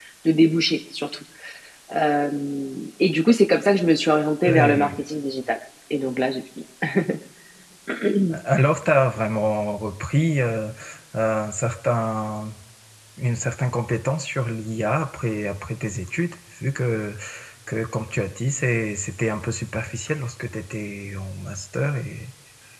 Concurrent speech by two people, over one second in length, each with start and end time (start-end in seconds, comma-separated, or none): none